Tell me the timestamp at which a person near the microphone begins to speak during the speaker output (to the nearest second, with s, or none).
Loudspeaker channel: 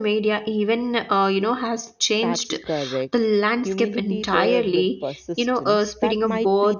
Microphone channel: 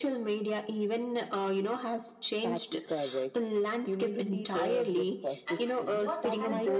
5 s